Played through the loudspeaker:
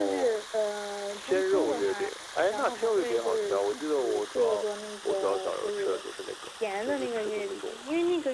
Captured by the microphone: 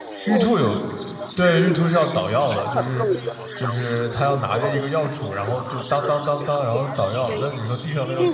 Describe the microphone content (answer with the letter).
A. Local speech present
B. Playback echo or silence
A